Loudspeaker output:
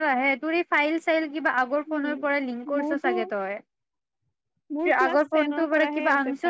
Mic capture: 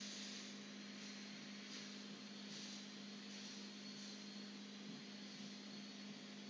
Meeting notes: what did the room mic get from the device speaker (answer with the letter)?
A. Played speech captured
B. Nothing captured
B